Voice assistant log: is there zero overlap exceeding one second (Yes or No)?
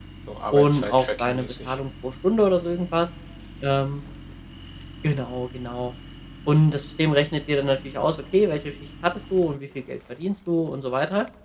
No